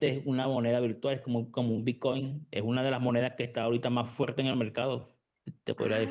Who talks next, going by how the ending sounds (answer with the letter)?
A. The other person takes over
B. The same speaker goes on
A